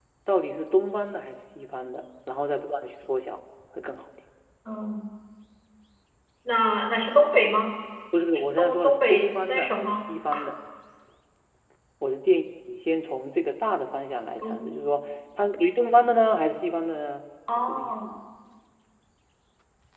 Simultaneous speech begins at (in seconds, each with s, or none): 8.3 s